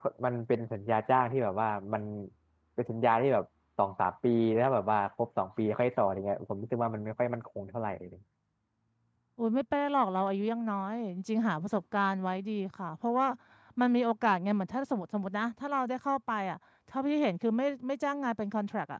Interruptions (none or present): none